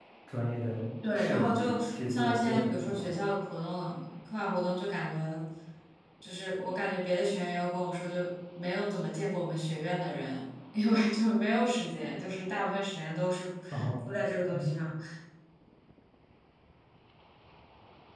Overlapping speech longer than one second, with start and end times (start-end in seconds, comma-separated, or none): 1.1-3.1